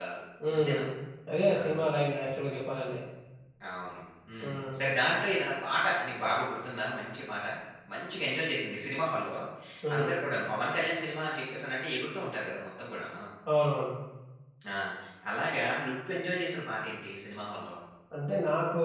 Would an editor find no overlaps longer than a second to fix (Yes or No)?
Yes